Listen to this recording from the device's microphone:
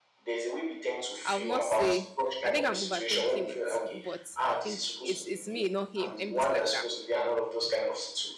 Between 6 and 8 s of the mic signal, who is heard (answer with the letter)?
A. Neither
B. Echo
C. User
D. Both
D